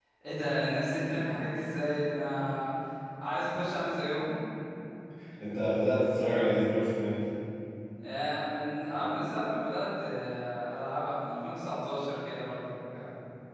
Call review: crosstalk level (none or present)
none